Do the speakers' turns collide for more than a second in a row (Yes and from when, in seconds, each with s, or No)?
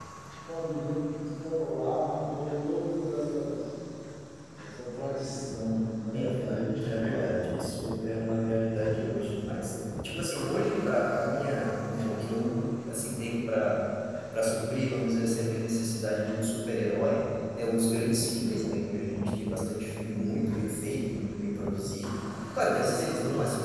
Yes, from 6.1 s